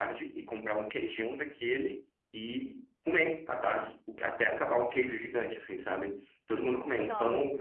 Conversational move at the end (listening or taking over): listening